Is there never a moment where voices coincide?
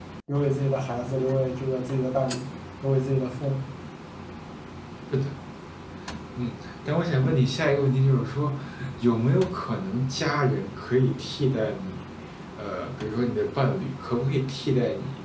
Yes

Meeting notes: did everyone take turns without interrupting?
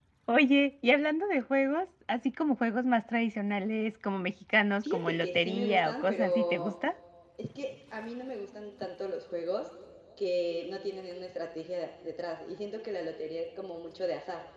No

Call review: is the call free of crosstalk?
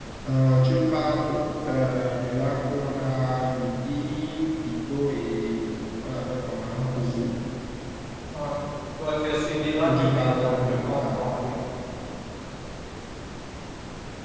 No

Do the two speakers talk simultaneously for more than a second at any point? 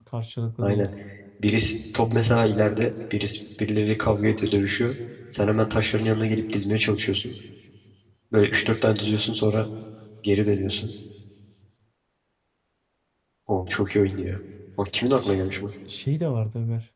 No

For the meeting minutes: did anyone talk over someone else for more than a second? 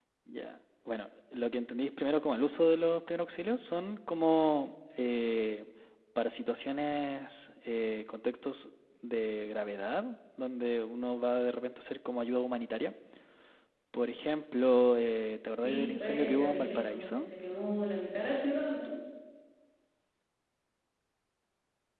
Yes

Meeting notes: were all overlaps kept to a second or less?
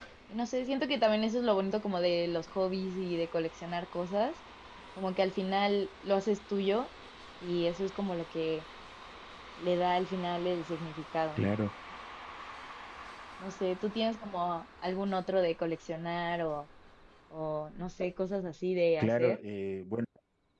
Yes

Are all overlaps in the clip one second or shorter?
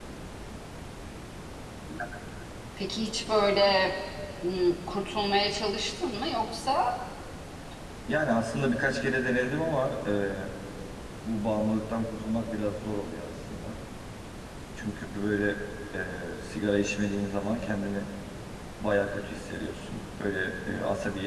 Yes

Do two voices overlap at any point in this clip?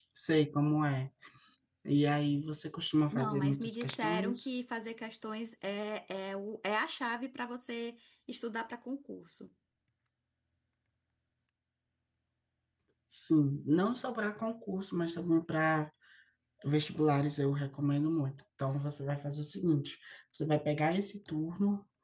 Yes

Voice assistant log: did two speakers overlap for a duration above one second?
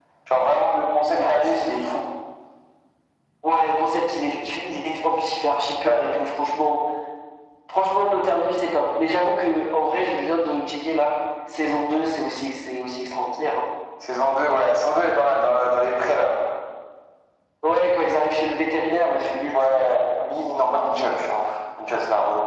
No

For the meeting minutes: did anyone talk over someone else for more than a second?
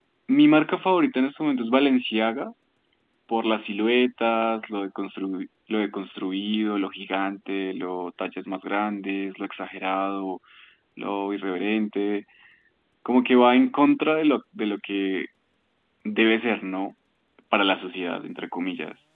No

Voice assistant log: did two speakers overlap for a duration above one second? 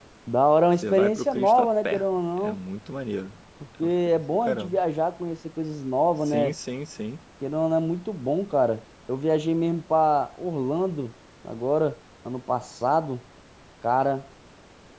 Yes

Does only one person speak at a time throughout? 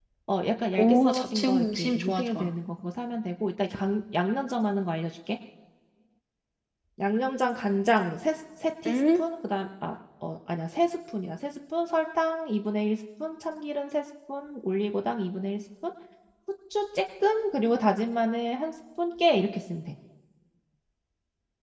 No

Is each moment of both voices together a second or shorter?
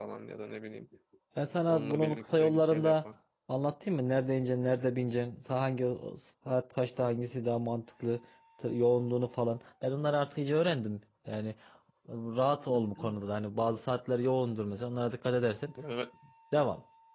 No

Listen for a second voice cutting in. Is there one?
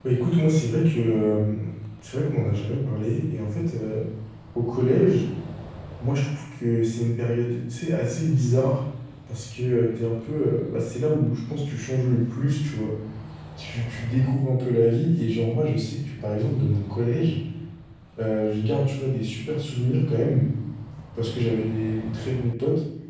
No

